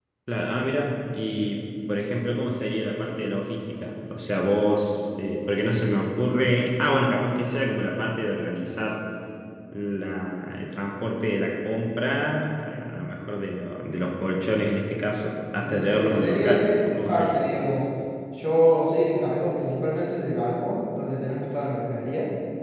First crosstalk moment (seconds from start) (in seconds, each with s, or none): 15.6 s